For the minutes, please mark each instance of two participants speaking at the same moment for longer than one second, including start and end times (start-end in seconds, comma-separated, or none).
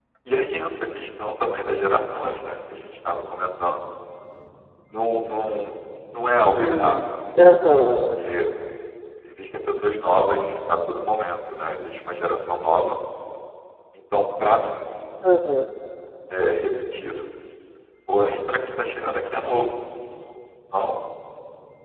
none